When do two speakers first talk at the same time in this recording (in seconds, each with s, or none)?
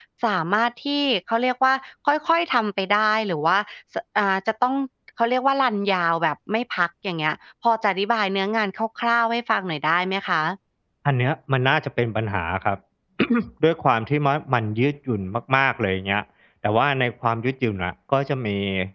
none